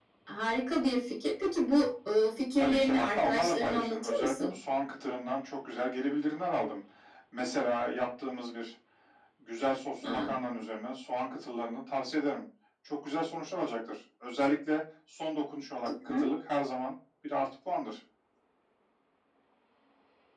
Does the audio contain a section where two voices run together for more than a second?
Yes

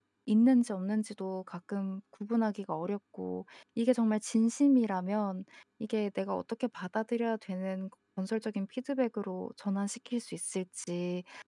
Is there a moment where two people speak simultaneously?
No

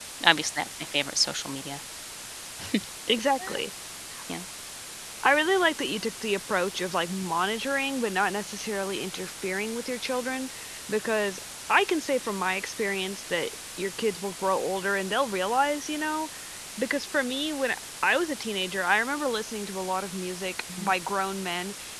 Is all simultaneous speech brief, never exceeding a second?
Yes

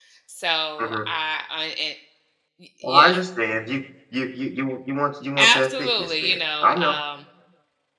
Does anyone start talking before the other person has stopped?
Yes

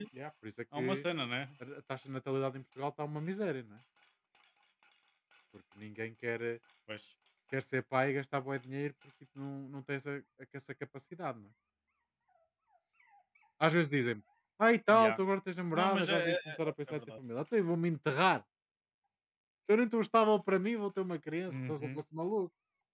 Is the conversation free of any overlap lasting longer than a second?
No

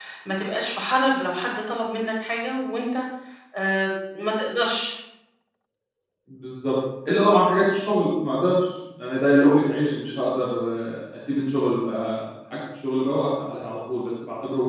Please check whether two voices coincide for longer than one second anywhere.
No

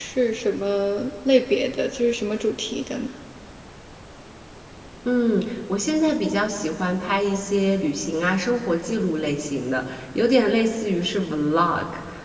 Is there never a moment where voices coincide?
Yes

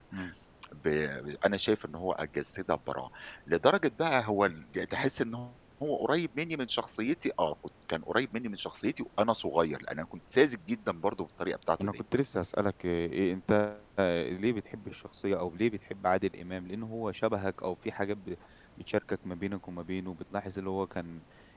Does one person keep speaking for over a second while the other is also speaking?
No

